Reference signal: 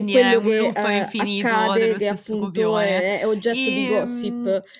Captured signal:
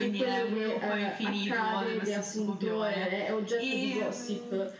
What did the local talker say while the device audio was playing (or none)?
none